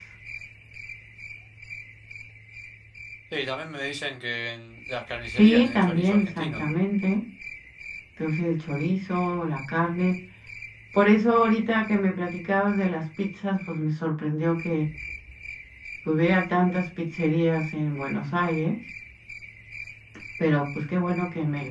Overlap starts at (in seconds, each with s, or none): 5.3 s